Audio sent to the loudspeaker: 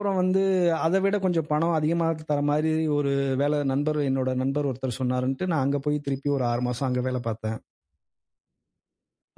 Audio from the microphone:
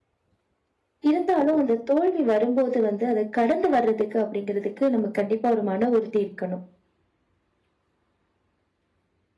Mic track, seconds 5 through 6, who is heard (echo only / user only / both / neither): user only